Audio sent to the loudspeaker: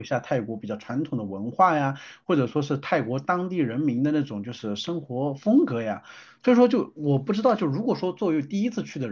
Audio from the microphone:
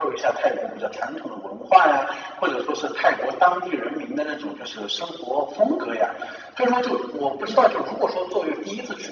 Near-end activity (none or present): none